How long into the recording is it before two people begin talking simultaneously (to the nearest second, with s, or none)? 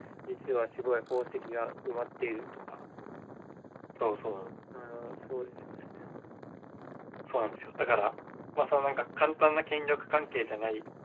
none